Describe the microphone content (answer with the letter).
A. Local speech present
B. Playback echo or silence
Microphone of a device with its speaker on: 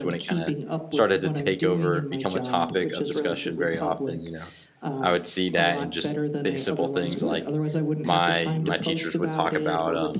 A